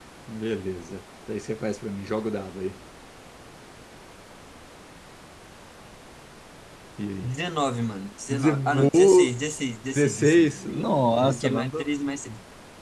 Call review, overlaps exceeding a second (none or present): present